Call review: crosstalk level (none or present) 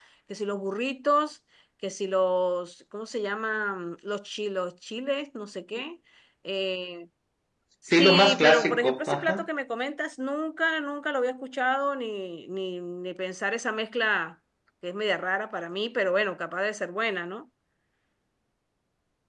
present